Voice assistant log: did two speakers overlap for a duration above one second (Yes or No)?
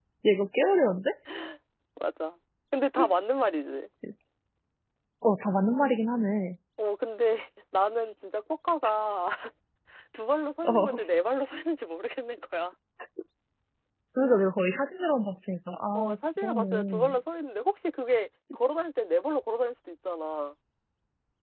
Yes